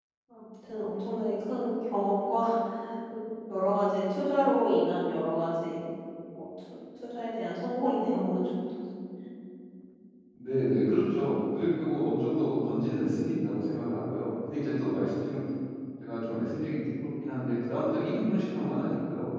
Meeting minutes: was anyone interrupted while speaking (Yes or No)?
No